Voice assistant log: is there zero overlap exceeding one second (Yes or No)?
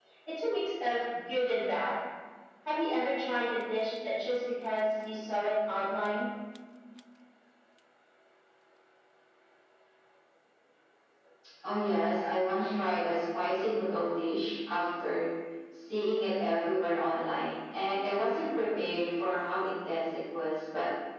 Yes